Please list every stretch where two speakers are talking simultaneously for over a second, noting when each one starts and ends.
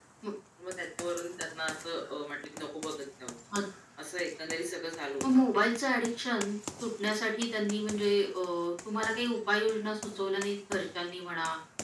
none

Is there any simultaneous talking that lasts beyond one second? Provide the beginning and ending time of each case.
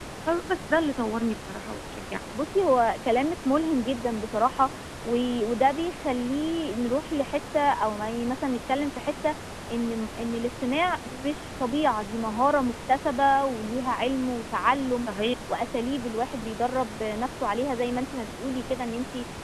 none

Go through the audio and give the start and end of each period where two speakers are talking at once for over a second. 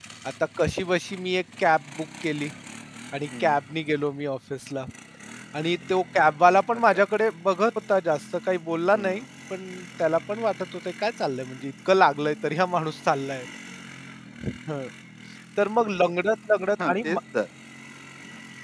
none

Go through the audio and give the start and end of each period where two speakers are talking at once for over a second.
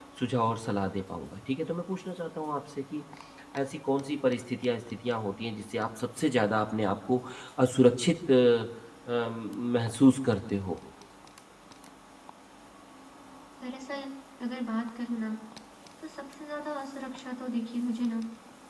none

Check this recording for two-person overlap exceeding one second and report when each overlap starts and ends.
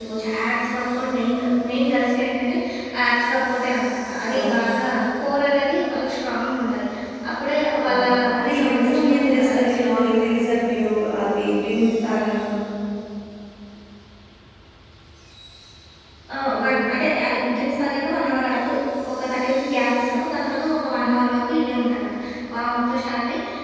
8.4-10.5

